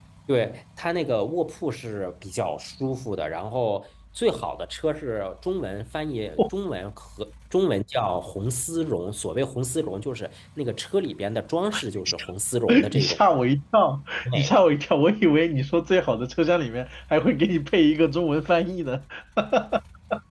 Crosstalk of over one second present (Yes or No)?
No